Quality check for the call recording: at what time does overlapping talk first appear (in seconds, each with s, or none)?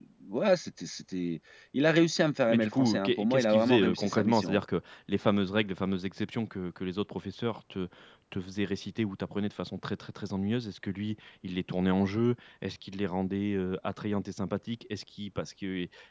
2.5 s